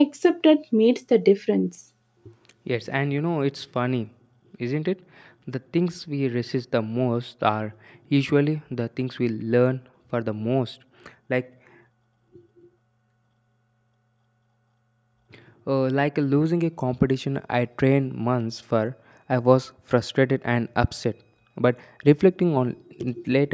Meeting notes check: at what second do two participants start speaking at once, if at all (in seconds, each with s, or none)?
none